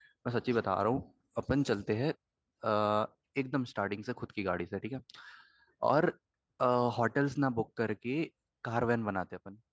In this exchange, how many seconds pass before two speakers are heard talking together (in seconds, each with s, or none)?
none